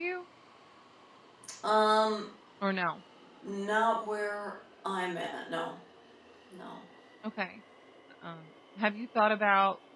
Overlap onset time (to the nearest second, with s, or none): none